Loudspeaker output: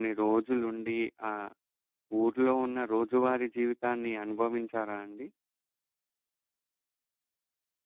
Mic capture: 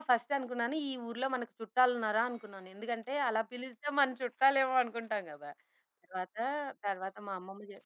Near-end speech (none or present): present